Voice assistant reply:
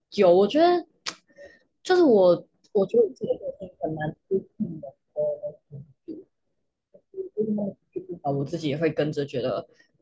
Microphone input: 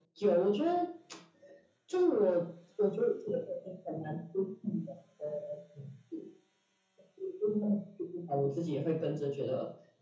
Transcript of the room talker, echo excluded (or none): none